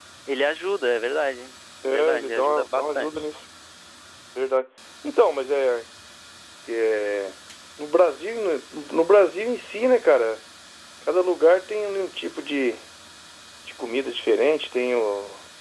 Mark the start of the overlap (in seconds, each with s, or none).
1.8 s